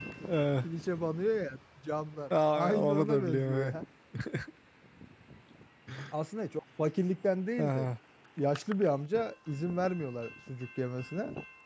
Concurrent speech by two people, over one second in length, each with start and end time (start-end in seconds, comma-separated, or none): 2.5-3.7